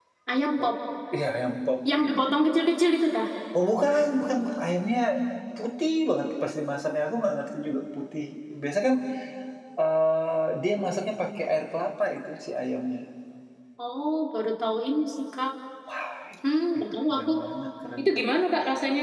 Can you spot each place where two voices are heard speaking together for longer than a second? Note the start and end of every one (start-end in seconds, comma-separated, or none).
none